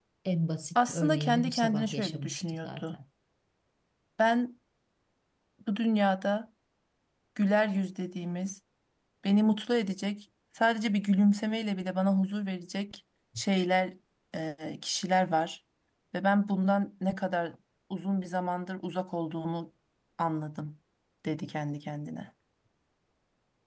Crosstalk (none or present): present